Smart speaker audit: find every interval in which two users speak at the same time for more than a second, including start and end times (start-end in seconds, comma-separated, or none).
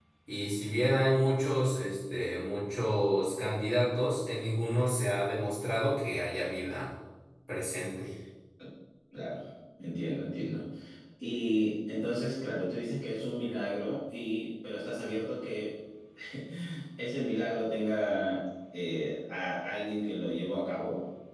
none